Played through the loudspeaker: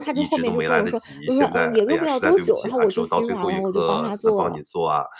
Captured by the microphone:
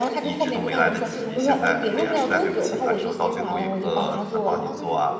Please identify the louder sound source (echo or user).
echo